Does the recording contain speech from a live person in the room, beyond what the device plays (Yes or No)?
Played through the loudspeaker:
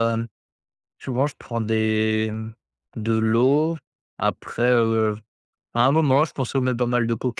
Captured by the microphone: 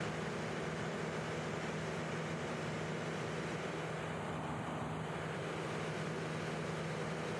No